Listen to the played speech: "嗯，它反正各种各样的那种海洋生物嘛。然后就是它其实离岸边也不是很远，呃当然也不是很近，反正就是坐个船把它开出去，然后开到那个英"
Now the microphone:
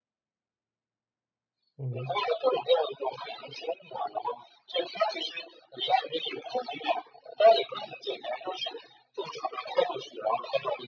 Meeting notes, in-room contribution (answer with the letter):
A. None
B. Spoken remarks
B